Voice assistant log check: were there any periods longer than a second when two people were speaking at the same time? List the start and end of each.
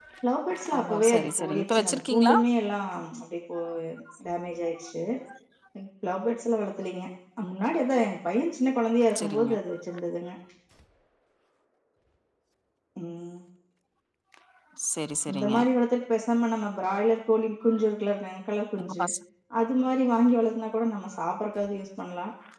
0.8-2.3

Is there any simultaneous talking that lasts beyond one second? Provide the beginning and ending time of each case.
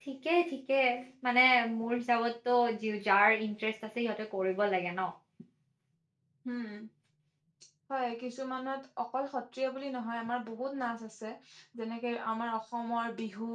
none

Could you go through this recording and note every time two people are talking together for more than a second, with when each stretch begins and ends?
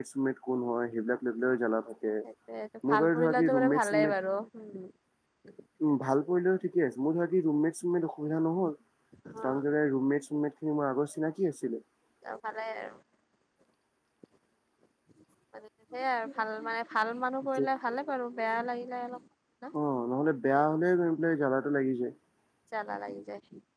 2.9-4.1

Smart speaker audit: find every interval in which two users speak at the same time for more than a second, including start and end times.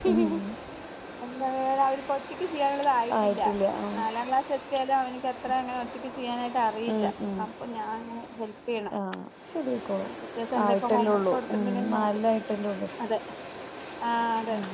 10.7-12.2

